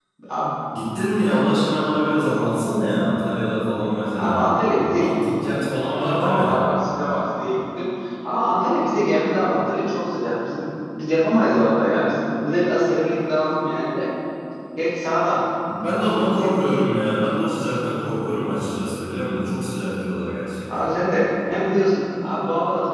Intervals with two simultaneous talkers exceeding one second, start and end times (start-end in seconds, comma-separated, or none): none